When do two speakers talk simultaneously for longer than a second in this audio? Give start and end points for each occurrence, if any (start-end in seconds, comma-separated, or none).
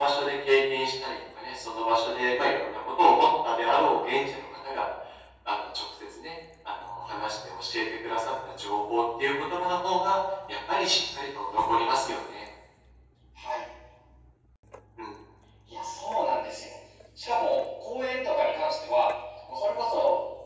none